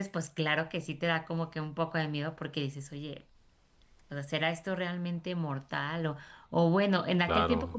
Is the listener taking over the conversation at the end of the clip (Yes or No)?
No